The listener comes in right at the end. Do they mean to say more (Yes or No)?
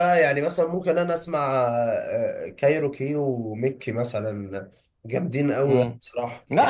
Yes